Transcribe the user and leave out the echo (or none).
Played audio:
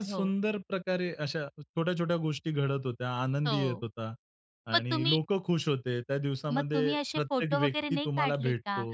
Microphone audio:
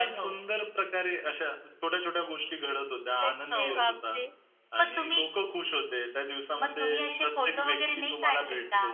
कसे बापरे!